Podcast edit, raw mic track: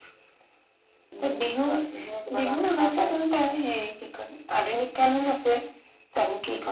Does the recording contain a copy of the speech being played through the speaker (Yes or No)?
Yes